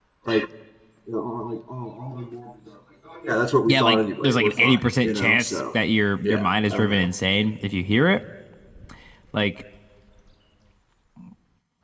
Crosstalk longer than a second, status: present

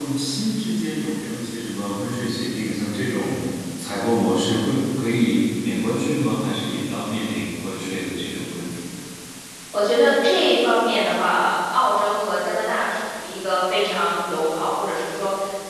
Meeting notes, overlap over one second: none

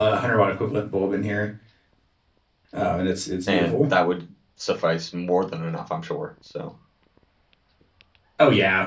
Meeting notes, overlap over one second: none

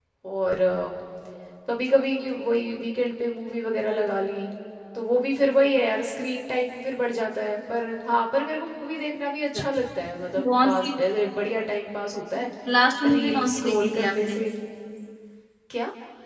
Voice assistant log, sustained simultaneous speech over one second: present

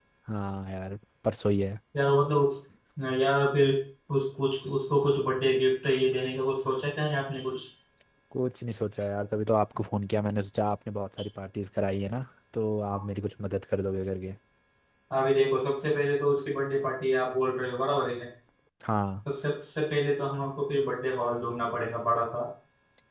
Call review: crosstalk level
none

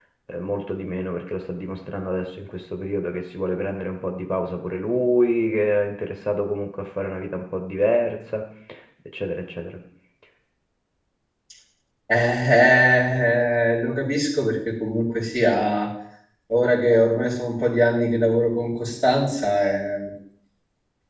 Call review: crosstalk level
none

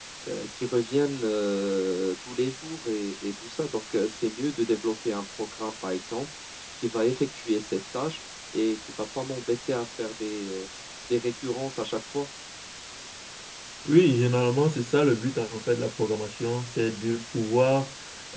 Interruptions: none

